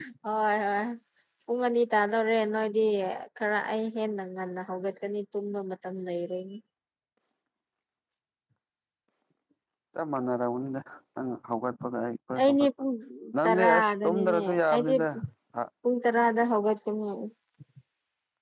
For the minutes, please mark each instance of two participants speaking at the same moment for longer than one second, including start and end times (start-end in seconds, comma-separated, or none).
13.4-14.9